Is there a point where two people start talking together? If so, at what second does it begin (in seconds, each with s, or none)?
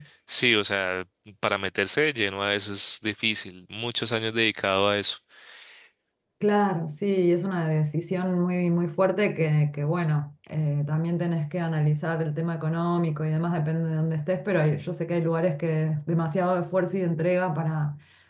none